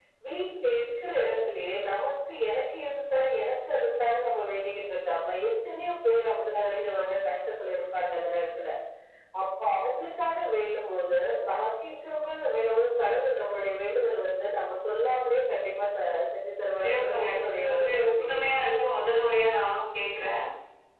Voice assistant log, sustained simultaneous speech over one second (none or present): present